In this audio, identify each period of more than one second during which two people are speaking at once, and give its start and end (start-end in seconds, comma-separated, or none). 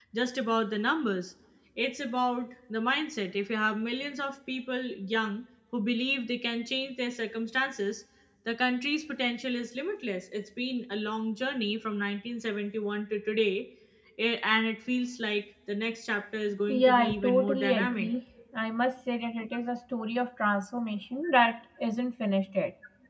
16.7-18.1